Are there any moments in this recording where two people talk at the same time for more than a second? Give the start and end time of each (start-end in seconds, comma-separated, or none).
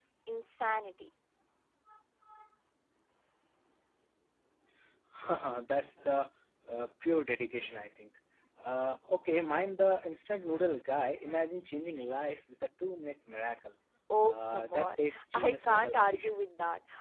14.2-16.3